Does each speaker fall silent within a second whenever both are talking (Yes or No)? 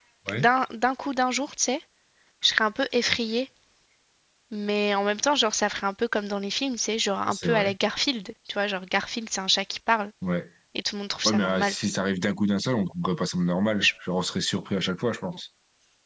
Yes